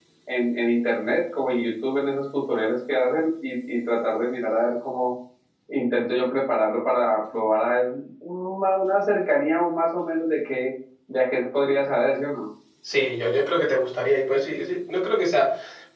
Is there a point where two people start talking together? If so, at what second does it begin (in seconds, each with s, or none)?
none